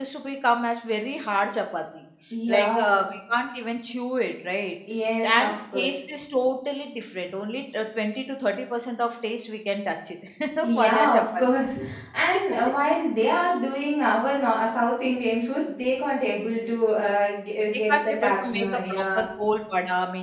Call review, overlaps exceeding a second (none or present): present